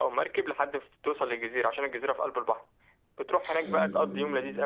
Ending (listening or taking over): listening